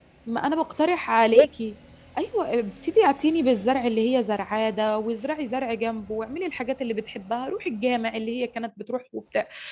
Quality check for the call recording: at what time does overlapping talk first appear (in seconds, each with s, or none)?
none